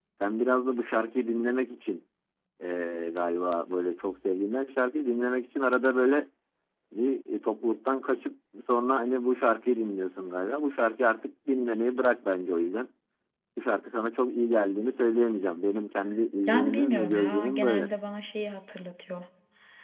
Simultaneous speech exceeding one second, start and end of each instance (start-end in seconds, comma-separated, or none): 16.5-17.9